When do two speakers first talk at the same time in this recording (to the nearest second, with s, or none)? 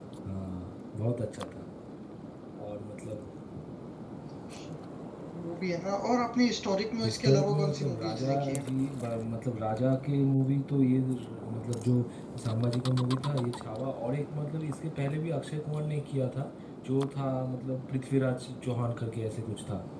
7 s